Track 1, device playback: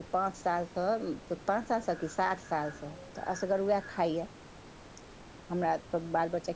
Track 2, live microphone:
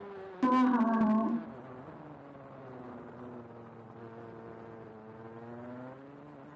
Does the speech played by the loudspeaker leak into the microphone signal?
No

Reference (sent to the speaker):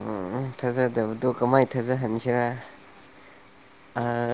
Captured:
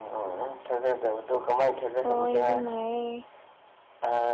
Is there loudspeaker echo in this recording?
Yes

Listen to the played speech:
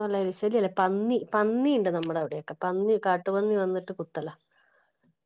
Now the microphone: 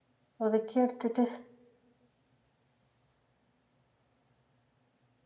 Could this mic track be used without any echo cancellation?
Yes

